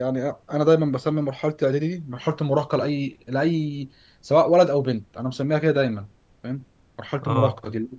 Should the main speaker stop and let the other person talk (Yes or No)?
Yes